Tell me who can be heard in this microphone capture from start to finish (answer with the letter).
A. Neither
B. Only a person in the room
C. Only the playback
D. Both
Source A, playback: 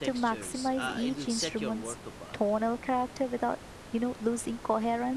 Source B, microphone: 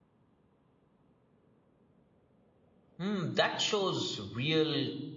B